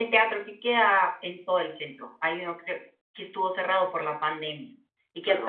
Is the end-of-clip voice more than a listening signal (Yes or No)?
No